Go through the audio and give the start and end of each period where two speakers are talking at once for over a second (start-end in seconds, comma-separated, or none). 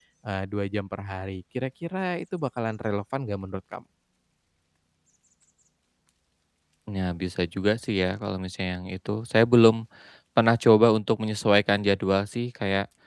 none